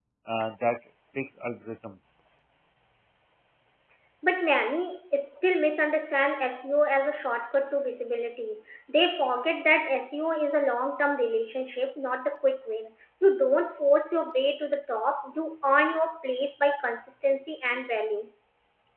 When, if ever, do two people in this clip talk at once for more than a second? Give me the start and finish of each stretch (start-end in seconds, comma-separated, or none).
none